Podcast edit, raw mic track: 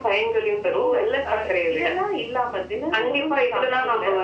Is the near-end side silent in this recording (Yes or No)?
Yes